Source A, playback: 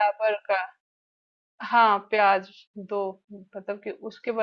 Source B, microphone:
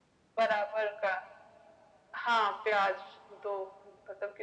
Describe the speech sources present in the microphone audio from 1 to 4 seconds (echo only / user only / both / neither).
echo only